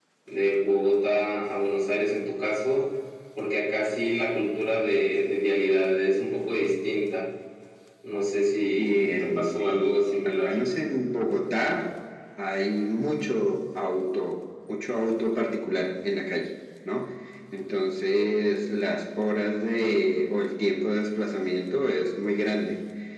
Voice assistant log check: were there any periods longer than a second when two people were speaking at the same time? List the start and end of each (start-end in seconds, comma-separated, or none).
8.8-10.5